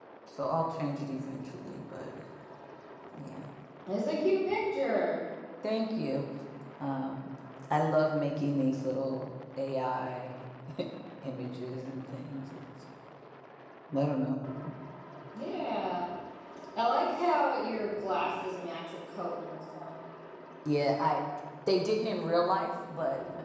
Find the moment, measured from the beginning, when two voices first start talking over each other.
none

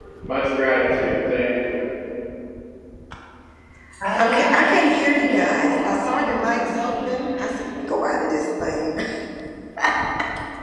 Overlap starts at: 4 s

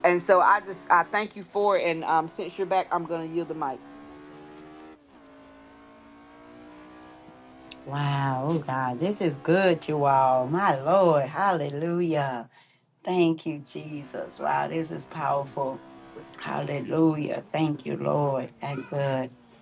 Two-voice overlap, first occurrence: none

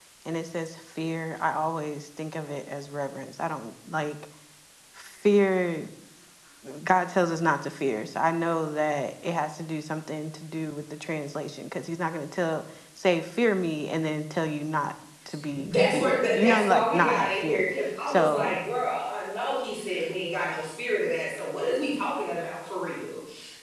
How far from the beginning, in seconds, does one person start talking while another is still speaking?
16 s

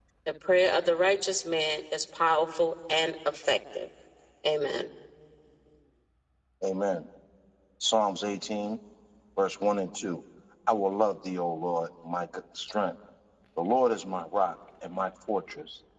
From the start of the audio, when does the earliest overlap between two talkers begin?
none

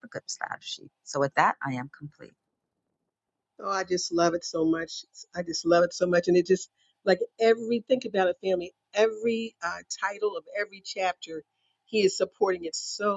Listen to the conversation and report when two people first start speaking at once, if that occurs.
none

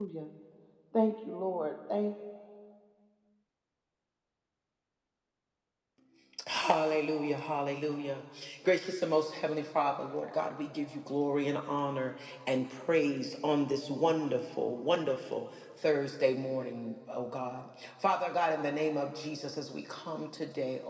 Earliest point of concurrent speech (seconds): none

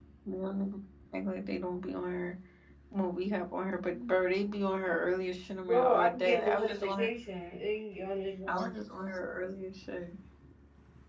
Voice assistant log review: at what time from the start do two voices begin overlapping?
6 s

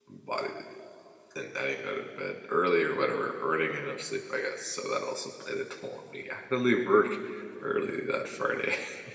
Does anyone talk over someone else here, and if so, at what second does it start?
none

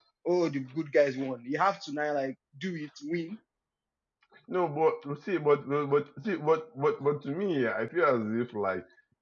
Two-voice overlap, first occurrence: none

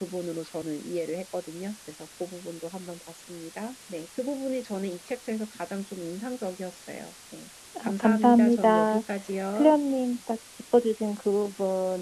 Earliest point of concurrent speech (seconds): 8 s

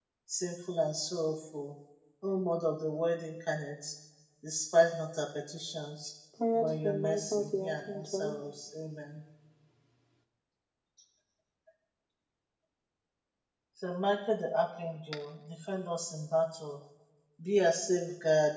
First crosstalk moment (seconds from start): 7 s

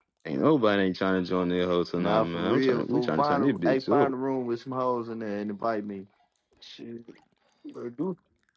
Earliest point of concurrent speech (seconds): 2 s

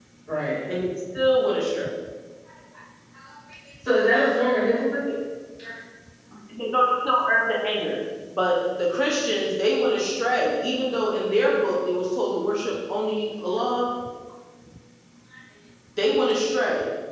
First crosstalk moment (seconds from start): none

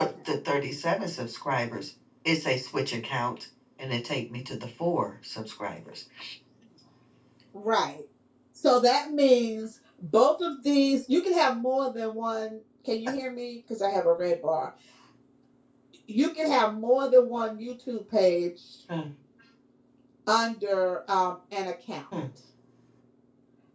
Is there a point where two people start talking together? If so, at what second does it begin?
none

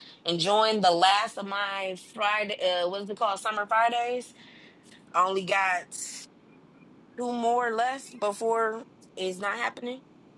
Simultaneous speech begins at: none

